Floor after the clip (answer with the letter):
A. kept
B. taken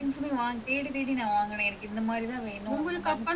B